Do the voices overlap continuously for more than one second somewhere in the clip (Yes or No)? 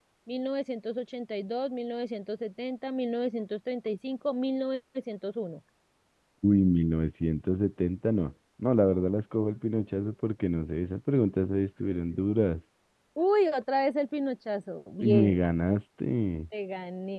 No